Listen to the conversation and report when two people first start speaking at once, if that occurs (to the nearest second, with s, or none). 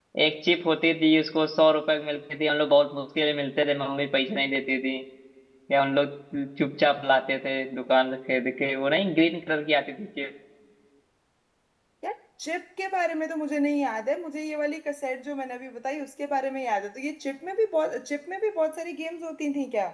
none